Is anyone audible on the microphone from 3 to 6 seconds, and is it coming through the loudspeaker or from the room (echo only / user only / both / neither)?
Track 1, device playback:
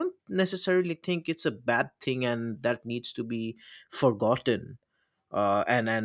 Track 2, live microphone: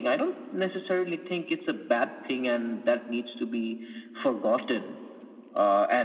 echo only